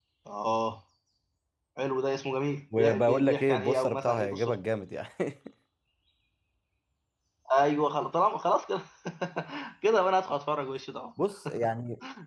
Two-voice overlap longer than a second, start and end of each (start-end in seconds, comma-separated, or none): 2.8-4.6